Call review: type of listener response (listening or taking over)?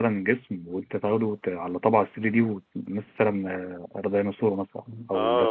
taking over